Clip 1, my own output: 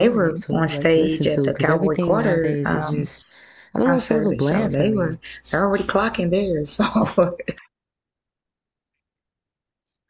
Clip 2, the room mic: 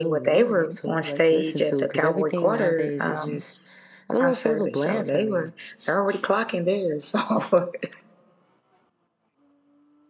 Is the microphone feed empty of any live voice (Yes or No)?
Yes